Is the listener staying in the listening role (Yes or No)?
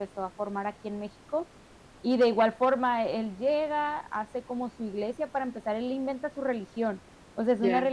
Yes